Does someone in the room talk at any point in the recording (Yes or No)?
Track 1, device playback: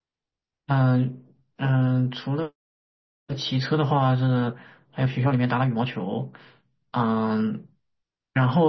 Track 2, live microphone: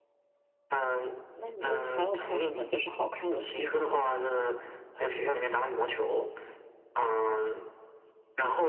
Yes